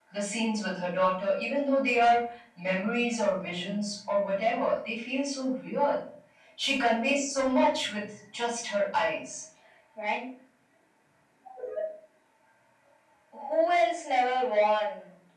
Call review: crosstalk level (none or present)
none